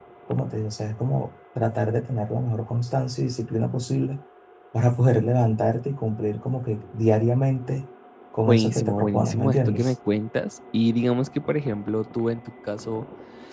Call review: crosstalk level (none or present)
present